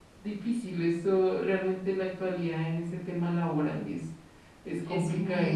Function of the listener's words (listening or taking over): taking over